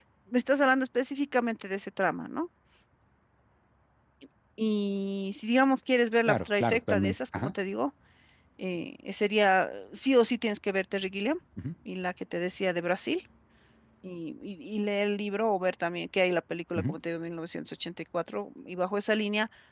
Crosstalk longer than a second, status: present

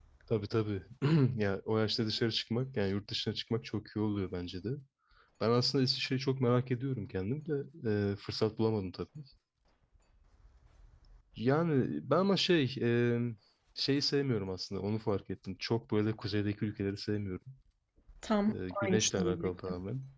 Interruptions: present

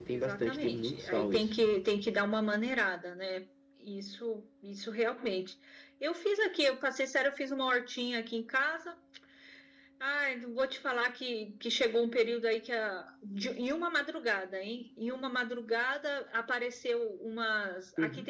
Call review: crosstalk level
present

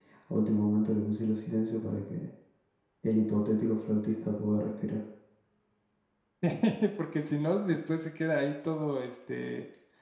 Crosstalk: none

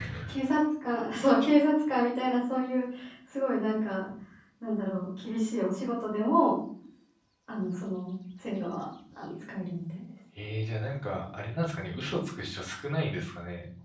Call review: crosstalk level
none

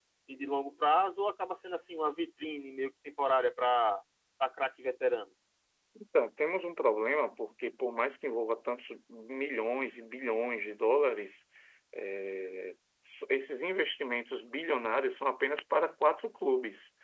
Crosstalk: none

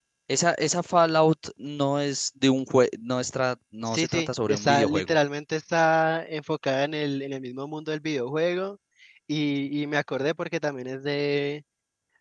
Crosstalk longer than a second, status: present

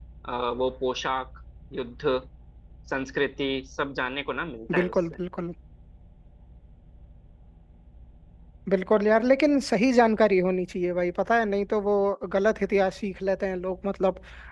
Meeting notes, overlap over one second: none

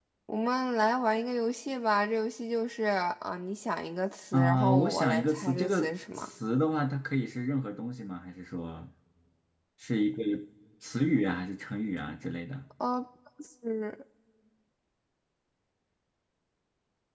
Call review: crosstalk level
present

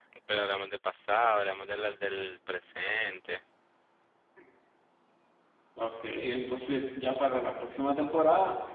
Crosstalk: none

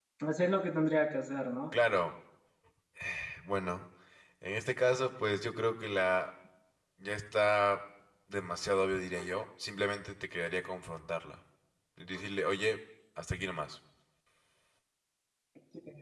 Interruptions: none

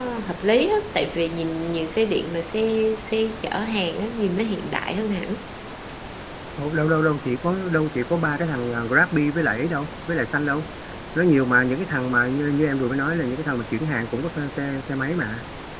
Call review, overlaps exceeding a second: none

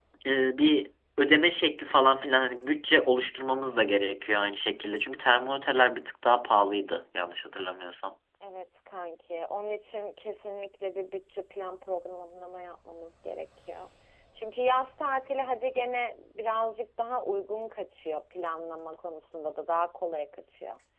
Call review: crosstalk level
none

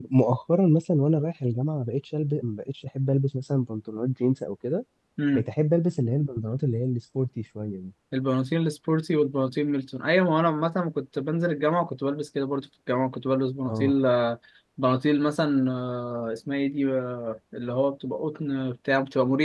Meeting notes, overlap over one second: none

